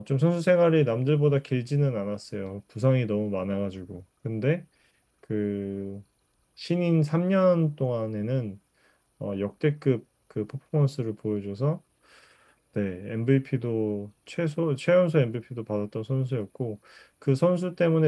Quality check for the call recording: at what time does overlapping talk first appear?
none

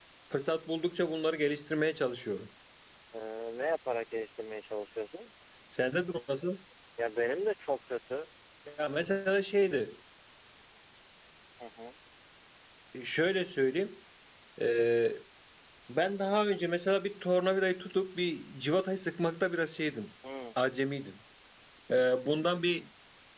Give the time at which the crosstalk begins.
none

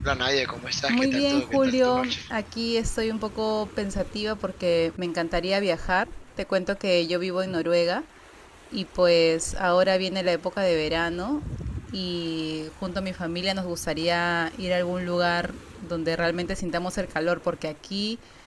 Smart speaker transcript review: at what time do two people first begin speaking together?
0.9 s

